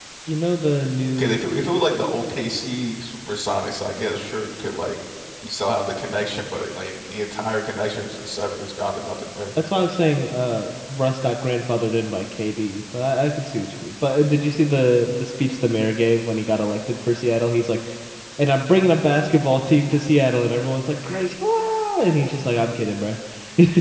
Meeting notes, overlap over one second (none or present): none